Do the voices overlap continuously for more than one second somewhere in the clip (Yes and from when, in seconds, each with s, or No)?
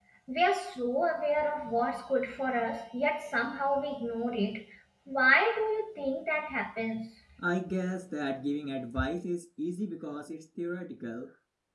No